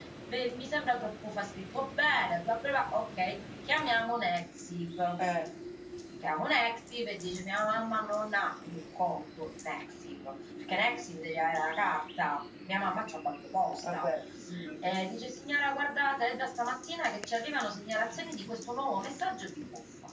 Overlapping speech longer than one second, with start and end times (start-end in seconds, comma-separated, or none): none